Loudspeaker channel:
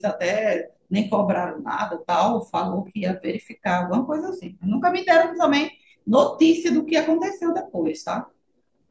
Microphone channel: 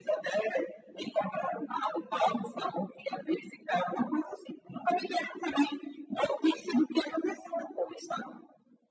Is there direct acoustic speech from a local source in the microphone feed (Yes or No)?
No